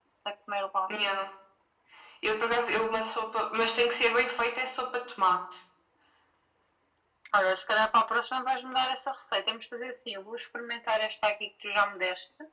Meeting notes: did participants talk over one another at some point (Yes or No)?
No